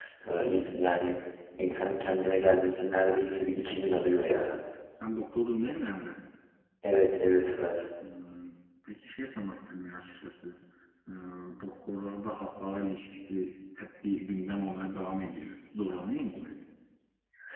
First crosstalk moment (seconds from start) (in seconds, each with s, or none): none